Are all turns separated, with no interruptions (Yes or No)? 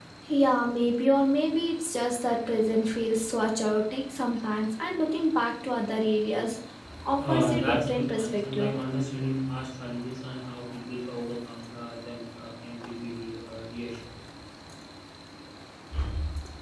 No